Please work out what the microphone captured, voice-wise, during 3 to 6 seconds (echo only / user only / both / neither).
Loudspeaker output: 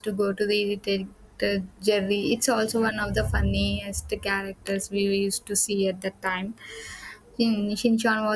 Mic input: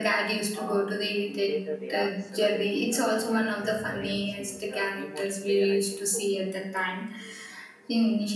both